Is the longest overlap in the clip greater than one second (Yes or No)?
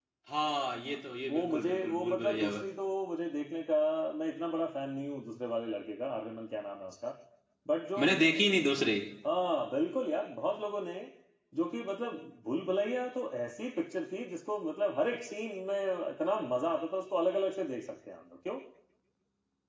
Yes